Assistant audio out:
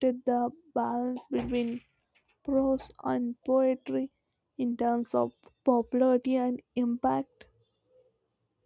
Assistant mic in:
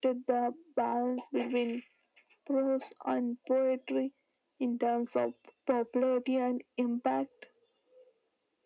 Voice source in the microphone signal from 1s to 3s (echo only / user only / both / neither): echo only